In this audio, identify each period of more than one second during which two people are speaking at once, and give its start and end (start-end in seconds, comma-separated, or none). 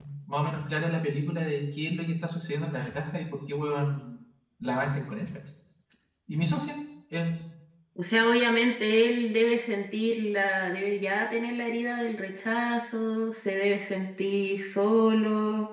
none